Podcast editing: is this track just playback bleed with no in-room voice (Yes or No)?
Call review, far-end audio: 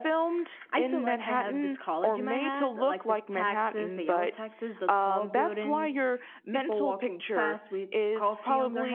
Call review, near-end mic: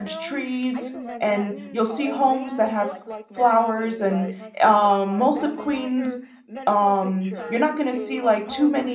No